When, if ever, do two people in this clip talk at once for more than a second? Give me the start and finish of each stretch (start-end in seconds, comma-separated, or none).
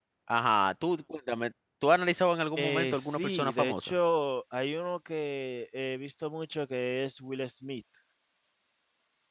2.6-3.9